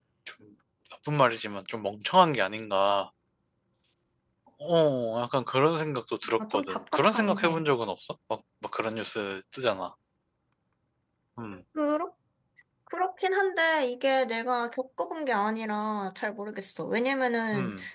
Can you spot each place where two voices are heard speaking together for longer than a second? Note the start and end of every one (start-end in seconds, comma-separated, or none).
6.4-7.7